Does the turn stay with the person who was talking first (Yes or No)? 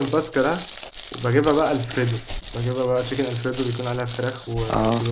Yes